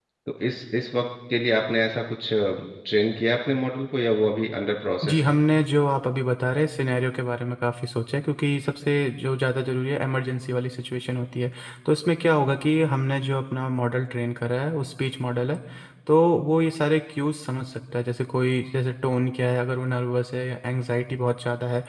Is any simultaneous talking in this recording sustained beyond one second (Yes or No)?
No